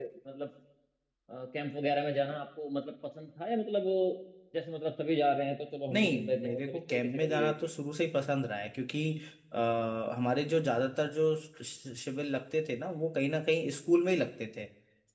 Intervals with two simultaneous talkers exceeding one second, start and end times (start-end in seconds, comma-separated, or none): 5.9-7.5